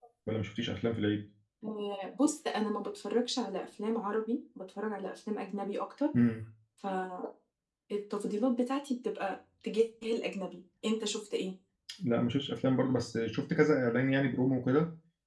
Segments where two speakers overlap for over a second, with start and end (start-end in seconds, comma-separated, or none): none